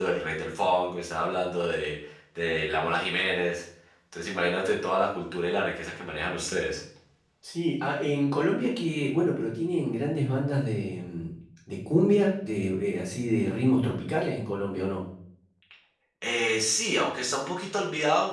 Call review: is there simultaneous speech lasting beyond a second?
No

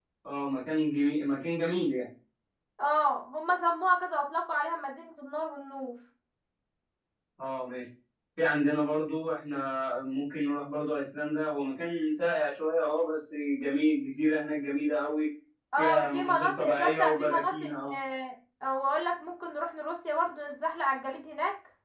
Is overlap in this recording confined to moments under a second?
No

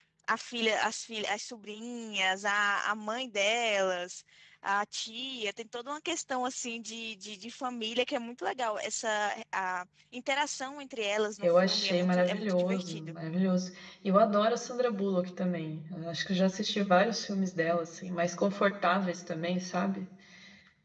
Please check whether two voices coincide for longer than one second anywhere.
Yes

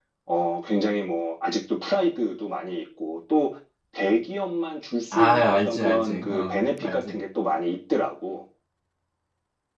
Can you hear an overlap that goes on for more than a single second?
Yes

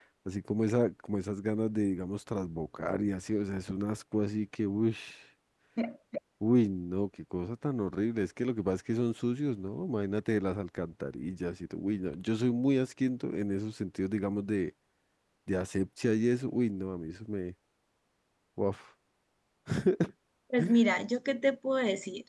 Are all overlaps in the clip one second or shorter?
Yes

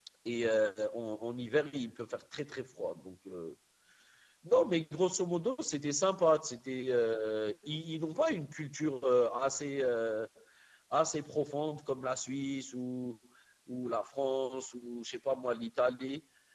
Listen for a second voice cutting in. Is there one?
No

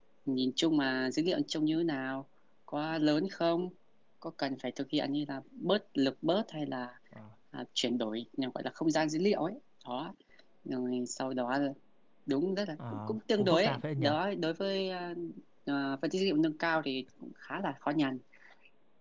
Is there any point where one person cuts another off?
Yes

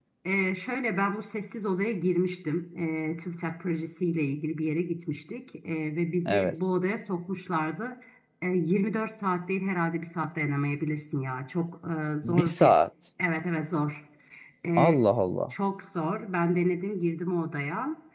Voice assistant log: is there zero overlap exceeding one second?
Yes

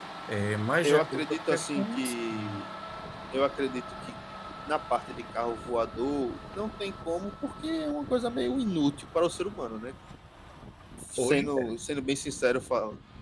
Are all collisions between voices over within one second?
No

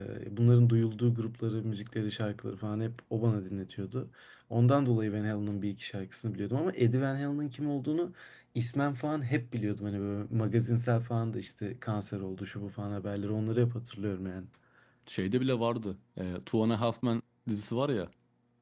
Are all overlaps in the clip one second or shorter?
Yes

